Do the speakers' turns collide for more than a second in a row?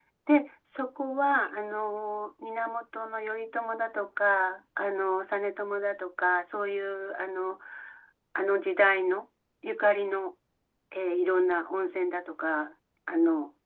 No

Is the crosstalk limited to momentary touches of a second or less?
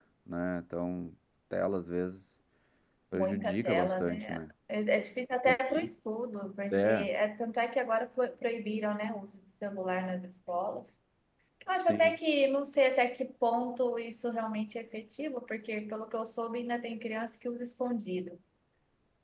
No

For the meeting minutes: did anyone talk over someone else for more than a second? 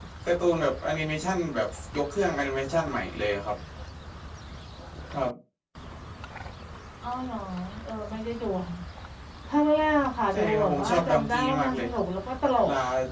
Yes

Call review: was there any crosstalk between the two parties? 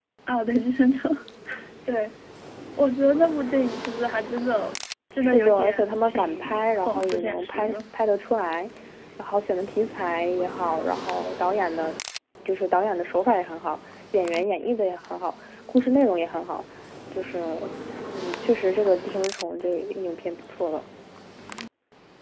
Yes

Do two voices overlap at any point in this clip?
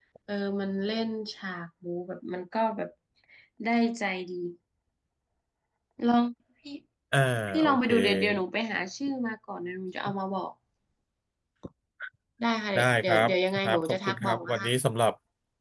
Yes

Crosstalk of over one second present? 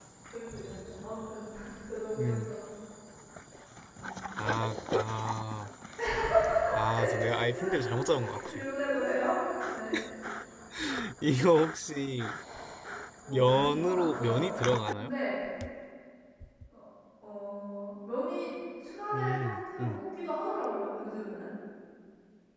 Yes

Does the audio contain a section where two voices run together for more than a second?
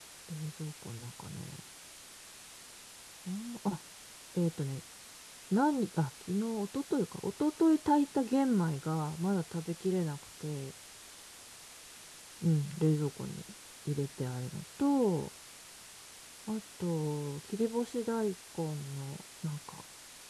No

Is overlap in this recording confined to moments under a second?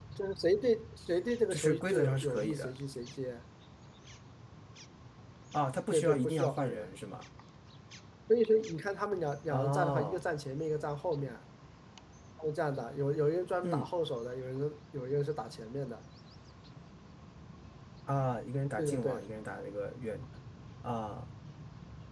No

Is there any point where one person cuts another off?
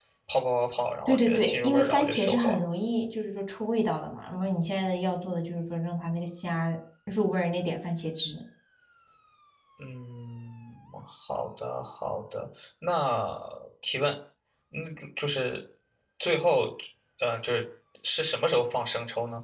Yes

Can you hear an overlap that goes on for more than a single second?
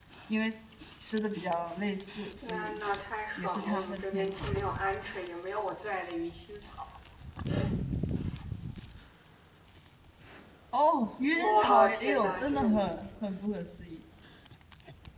Yes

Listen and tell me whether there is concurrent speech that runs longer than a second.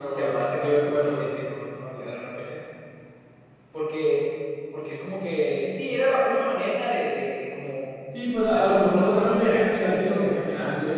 Yes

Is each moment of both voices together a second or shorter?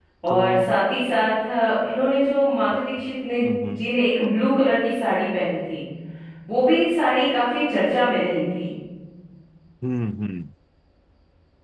Yes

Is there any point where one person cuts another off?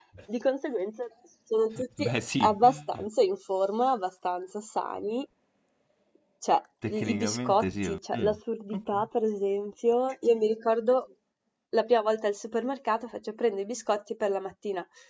Yes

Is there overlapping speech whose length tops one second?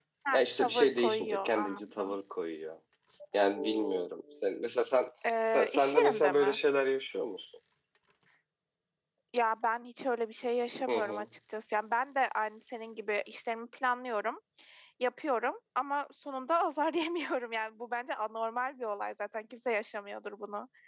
Yes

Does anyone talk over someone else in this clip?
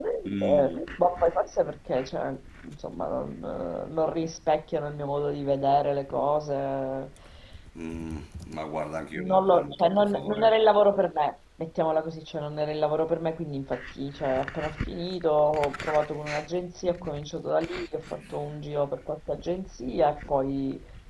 Yes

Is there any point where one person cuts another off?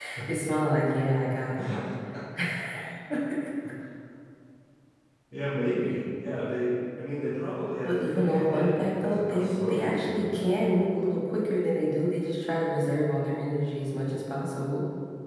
Yes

